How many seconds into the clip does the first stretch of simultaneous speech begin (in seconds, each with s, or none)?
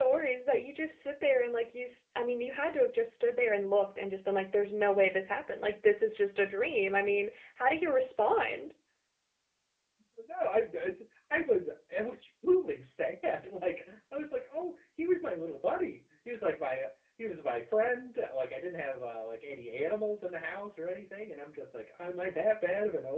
none